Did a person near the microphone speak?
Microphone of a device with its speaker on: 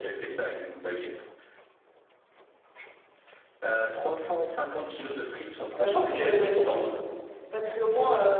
Yes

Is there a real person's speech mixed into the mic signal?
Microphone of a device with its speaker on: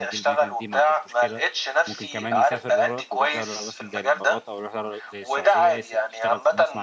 Yes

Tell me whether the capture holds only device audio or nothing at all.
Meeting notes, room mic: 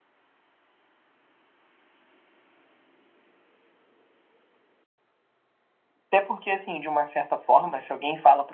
No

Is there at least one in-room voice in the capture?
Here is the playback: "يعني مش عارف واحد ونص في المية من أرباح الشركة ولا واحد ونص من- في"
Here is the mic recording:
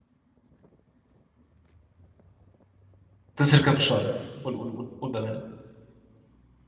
Yes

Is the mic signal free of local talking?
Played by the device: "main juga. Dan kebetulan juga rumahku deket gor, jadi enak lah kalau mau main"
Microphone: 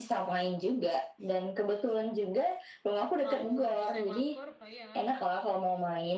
No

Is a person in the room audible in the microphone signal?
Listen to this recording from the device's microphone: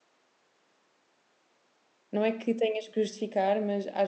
Yes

